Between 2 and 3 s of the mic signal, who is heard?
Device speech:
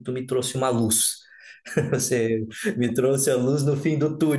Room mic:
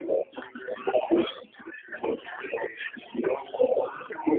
echo only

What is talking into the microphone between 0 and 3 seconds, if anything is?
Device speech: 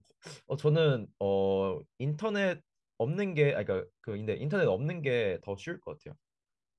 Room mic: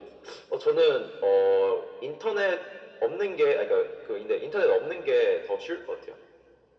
echo only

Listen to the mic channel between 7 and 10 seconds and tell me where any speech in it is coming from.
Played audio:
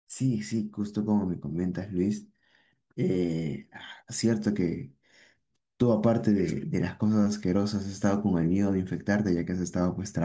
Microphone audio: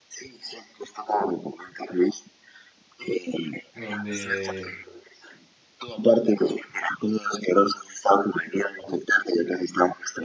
echo only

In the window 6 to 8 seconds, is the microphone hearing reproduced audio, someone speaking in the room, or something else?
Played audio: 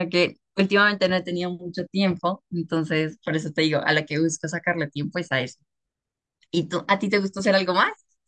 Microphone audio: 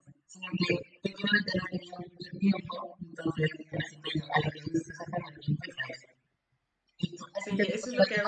both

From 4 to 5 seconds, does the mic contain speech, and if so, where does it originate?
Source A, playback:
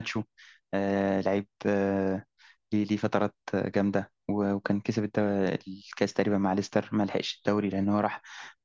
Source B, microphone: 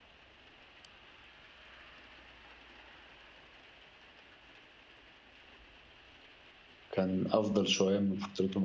neither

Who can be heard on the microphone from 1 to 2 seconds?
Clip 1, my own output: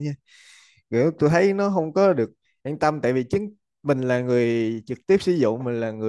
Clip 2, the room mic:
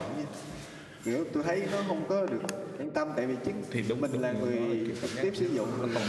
echo only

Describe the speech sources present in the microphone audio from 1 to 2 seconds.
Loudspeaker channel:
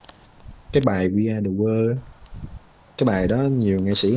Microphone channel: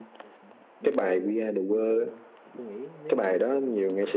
both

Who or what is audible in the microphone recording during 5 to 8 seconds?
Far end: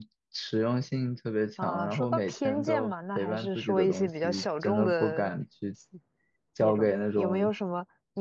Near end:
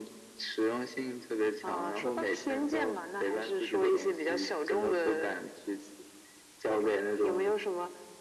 echo only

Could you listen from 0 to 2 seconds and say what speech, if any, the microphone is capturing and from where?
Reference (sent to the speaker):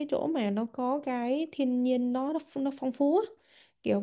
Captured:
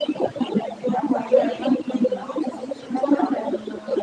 both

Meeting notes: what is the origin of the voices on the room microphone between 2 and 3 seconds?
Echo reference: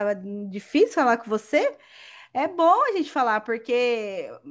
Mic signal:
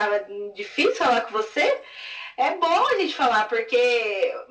echo only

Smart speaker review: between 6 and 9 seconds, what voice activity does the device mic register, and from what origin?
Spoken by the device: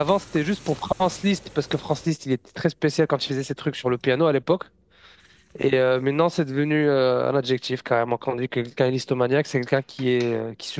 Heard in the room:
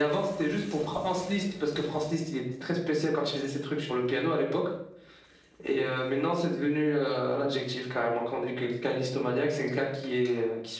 echo only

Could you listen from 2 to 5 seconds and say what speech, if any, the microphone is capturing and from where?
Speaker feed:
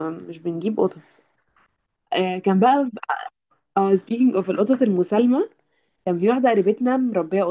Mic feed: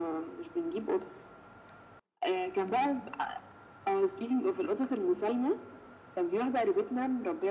echo only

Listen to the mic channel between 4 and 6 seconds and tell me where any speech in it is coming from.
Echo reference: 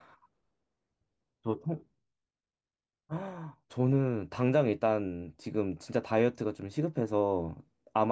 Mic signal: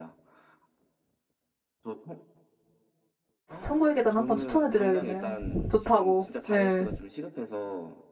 both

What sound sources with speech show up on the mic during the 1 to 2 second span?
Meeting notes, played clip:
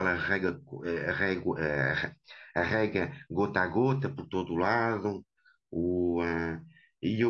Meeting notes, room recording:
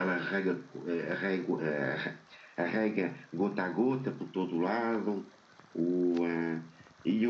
echo only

